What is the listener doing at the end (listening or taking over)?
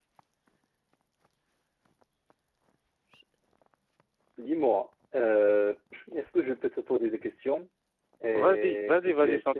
taking over